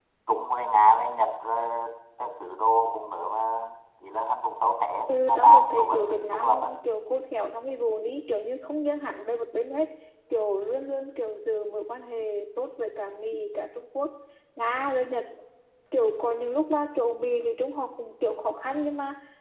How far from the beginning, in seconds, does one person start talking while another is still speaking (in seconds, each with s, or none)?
5.1 s